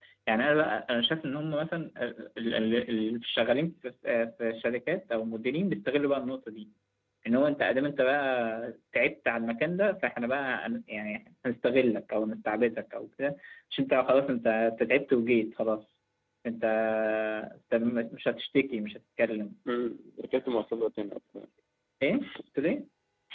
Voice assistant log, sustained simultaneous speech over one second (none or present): none